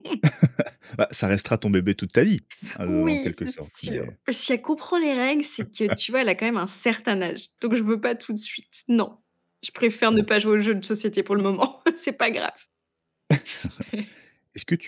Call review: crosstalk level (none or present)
present